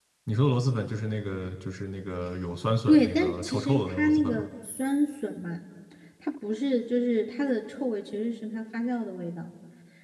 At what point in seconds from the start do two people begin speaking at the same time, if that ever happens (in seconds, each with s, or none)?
2.9 s